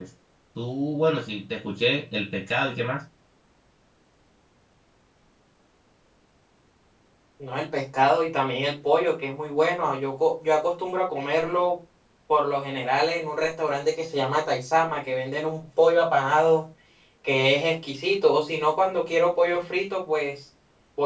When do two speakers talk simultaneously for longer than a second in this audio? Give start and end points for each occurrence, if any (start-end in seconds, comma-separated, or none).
none